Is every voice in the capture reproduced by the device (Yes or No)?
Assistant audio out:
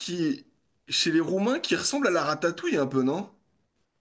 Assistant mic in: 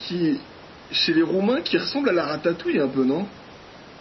Yes